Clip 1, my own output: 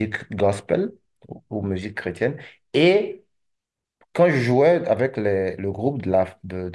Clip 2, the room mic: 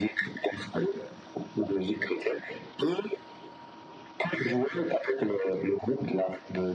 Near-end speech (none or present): none